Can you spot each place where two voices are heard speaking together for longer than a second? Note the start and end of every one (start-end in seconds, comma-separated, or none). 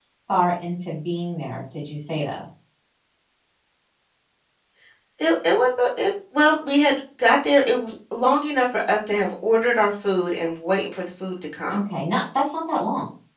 none